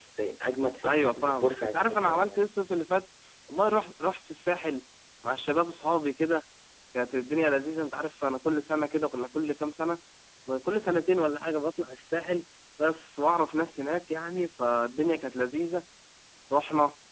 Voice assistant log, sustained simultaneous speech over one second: present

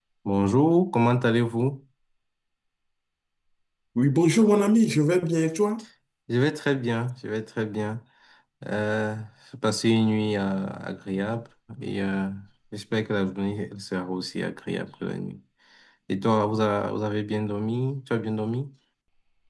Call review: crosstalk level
none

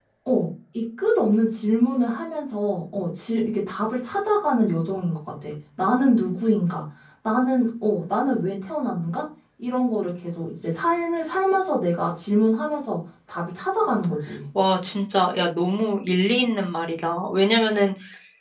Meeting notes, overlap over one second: none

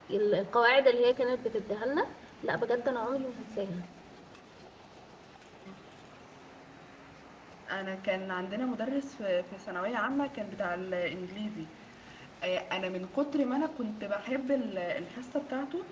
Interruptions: none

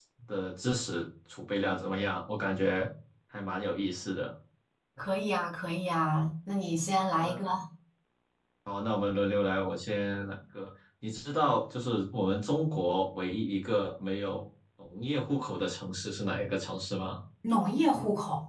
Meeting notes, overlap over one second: none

